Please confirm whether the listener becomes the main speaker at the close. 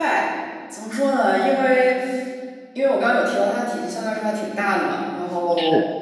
No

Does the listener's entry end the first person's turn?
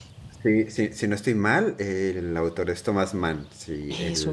No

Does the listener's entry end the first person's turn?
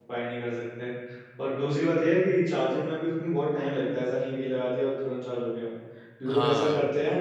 No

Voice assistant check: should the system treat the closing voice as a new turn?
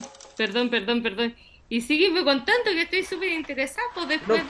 No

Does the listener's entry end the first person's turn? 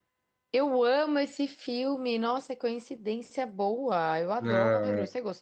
Yes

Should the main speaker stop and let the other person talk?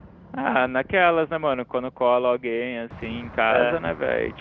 No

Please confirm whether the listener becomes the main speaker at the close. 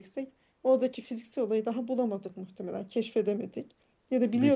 No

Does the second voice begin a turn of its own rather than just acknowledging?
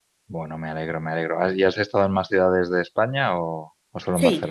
Yes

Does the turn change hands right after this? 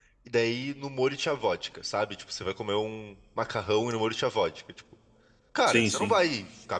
No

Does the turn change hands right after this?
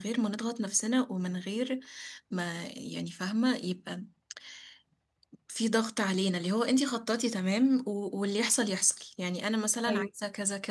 No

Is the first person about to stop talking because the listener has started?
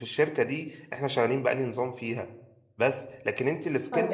Yes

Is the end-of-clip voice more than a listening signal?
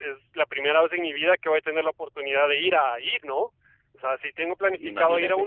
No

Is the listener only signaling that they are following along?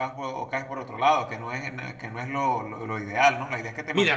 No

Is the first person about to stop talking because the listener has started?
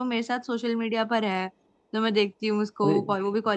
No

